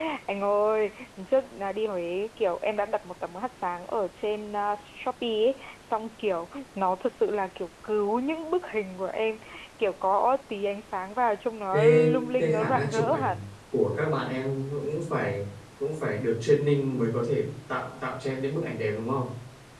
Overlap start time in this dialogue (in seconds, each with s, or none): 11.7 s